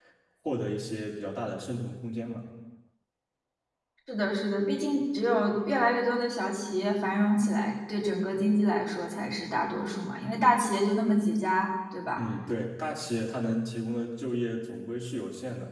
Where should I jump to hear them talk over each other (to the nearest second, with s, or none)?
none